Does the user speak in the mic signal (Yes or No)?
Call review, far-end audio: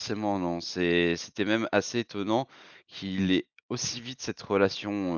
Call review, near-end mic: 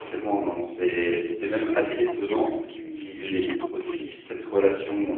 Yes